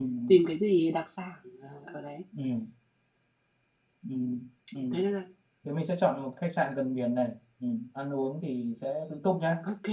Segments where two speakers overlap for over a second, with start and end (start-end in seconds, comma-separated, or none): none